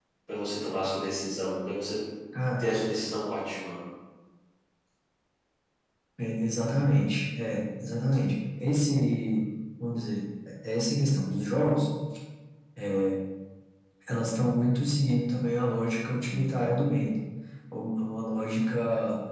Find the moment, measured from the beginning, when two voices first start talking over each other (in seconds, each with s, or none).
none